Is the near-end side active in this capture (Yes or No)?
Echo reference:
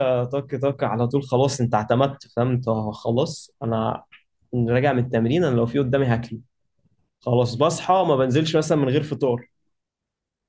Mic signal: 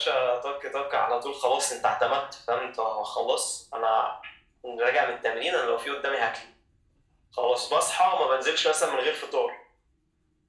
No